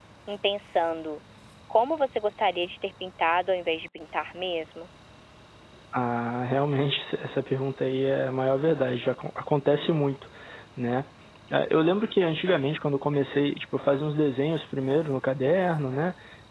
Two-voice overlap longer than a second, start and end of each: none

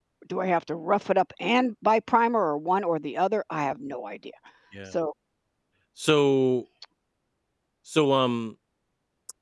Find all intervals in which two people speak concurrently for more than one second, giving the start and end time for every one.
none

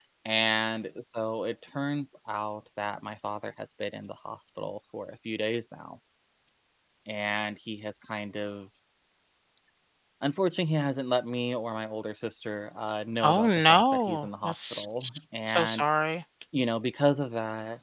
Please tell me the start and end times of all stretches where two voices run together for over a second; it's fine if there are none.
13.2-14.9

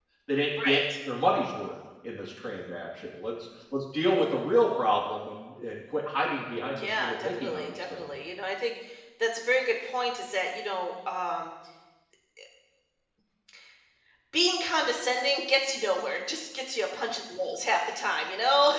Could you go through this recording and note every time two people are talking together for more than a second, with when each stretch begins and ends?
6.8-8.0

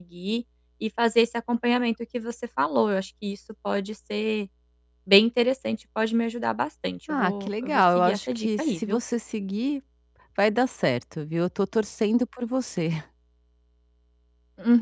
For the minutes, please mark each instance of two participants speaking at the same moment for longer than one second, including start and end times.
7.1-9.0

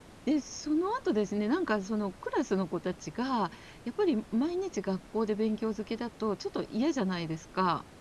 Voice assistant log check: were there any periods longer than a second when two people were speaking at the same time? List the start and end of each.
none

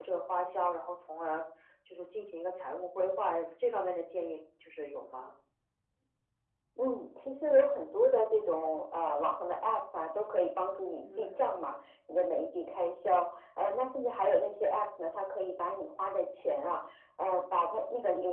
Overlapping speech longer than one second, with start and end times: none

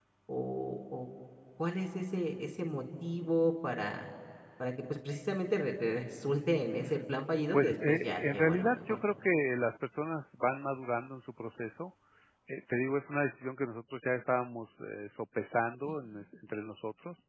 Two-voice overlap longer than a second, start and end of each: 7.5-9.0

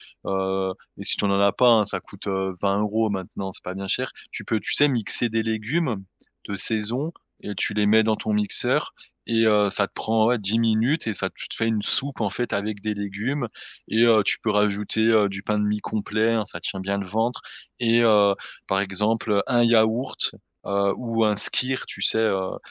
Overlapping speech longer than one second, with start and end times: none

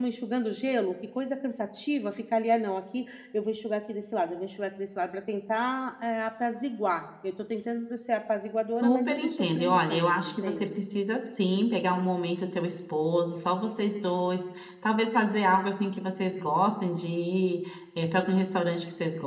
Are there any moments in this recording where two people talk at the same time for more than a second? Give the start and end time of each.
8.8-10.8

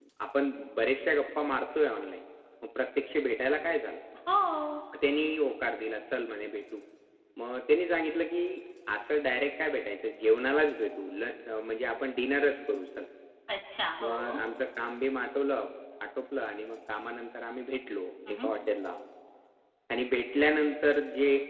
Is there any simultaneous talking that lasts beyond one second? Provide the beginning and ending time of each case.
none

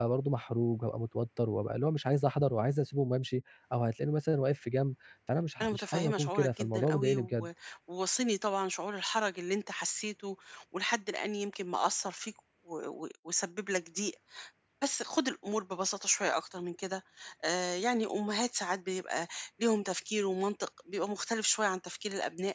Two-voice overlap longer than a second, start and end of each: 5.6-7.5

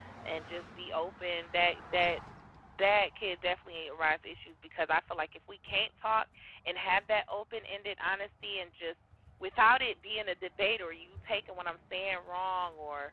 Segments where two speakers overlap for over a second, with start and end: none

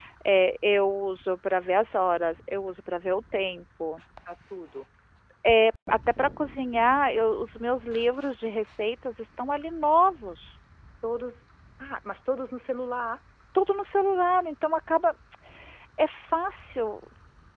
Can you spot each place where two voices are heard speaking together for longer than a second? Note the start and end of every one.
none

